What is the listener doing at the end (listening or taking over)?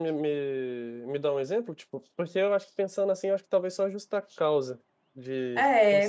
taking over